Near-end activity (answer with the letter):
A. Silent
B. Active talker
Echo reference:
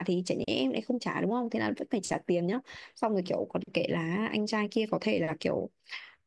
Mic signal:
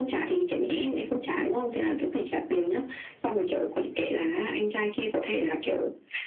A